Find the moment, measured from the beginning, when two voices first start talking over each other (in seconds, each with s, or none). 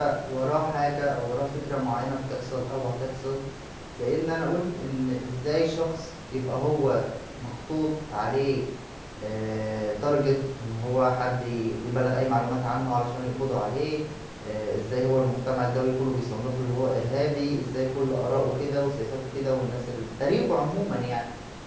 none